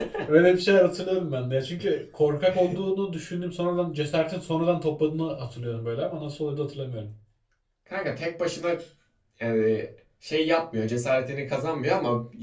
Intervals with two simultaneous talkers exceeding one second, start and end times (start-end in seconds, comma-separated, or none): none